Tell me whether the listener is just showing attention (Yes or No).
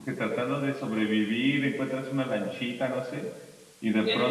No